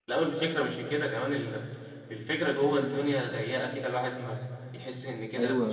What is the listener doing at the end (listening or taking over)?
taking over